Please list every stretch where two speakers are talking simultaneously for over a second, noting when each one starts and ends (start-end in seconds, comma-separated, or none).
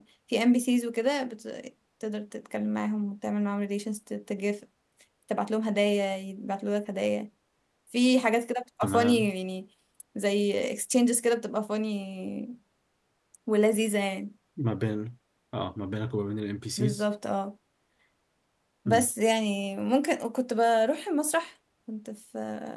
none